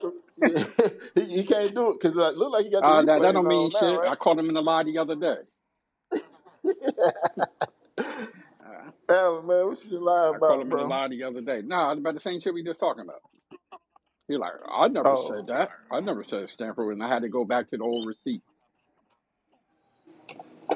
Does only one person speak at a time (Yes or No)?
No